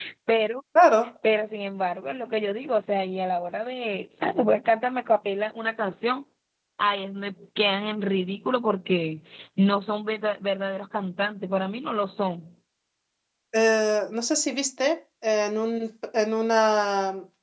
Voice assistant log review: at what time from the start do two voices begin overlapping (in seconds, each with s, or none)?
none